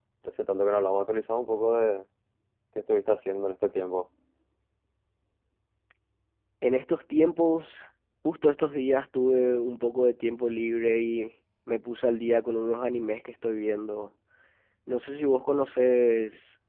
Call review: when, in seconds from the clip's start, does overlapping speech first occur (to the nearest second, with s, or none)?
none